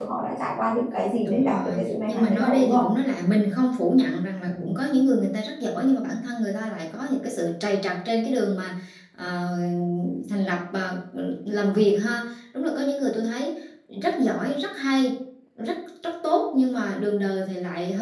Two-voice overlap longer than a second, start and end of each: 1.2-2.8

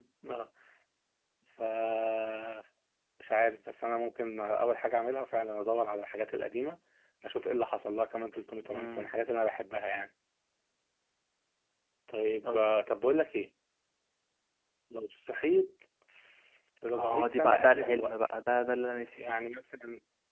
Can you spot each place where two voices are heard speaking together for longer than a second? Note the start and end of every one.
16.9-18.2

